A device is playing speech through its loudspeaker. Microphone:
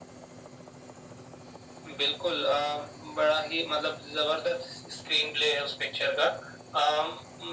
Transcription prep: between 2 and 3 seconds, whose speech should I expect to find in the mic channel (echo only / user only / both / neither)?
echo only